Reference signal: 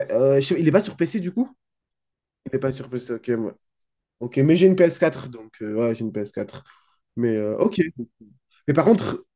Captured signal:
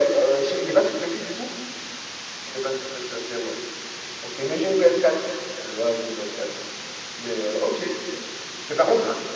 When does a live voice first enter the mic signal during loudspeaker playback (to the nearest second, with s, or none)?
none